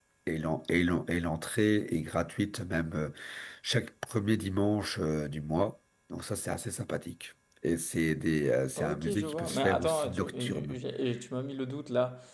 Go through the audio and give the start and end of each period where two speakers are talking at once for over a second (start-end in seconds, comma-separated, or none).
8.8-10.8